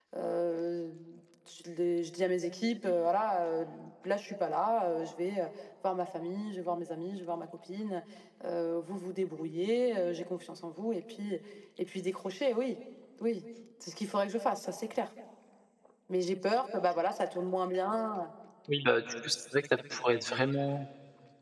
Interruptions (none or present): none